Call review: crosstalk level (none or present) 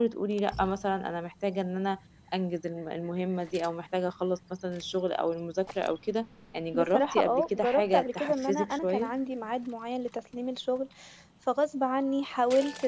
present